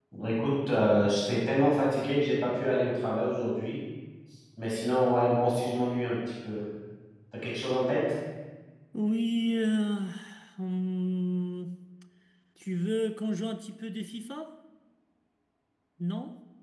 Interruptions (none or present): none